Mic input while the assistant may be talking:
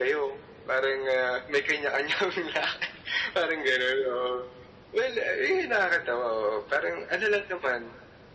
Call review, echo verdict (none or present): present